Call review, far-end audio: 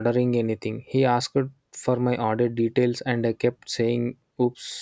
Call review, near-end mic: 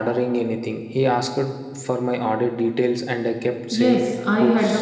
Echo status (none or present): present